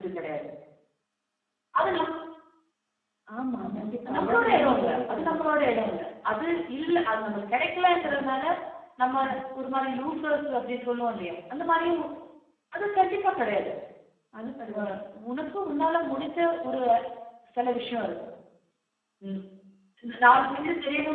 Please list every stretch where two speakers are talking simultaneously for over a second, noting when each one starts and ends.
3.7-5.5

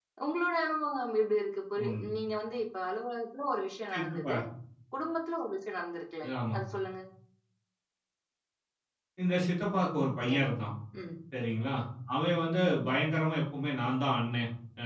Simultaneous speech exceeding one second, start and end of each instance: none

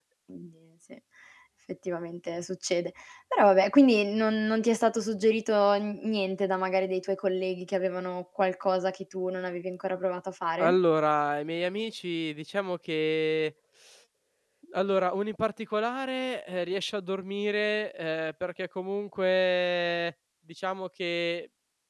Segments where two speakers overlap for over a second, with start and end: none

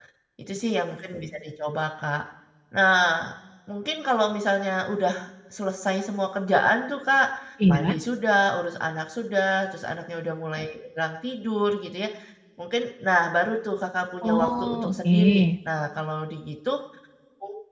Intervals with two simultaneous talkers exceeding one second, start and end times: 14.2-15.4

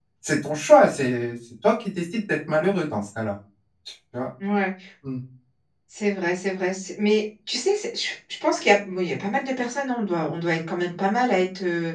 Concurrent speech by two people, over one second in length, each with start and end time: none

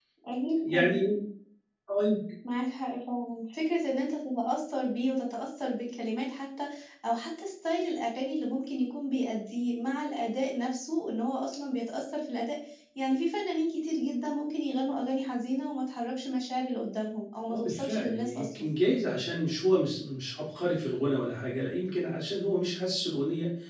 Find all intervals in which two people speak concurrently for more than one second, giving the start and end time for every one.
17.5-18.7

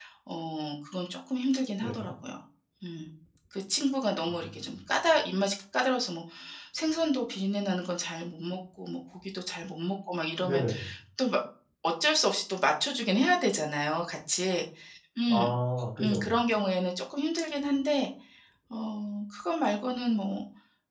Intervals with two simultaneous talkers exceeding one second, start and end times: none

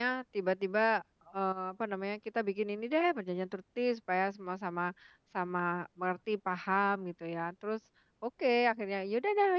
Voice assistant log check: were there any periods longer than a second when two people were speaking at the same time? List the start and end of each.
none

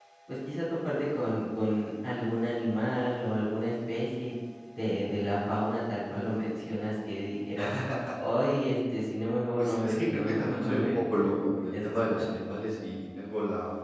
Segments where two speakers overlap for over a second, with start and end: 9.6-12.2

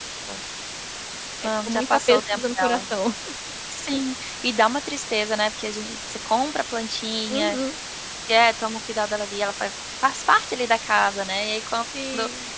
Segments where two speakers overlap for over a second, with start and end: 1.4-2.8

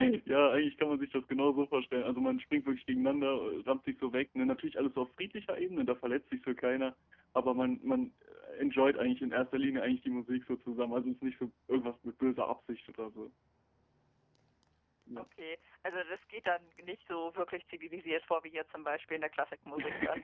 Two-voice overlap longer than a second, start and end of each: none

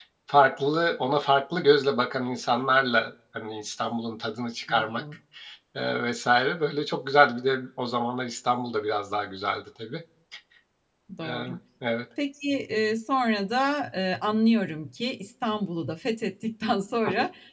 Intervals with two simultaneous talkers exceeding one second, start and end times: none

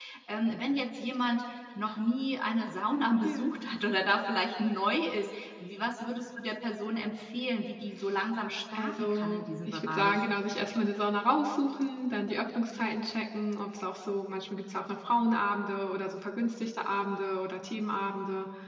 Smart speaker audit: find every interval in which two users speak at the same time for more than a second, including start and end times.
8.8-10.2

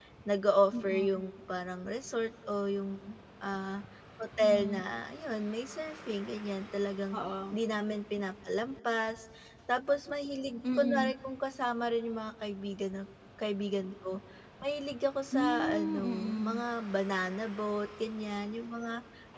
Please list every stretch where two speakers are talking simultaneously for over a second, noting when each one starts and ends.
15.3-16.6

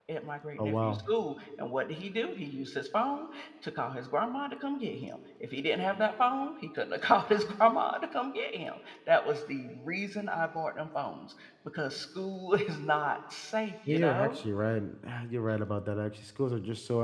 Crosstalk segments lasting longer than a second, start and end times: none

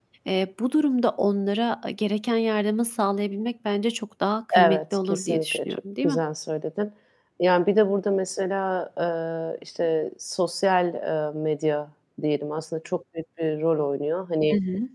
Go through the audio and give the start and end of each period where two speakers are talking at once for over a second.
4.5-6.2

